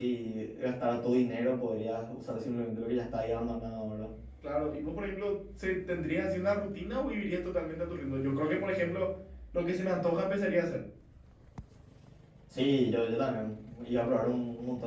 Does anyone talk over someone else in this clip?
No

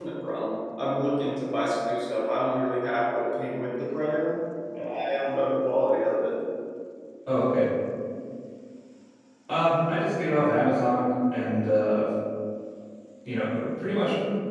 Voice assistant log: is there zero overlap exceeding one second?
Yes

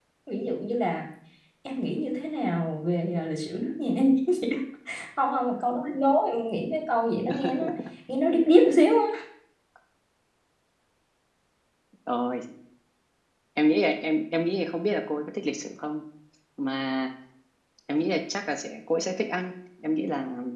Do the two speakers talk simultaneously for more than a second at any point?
No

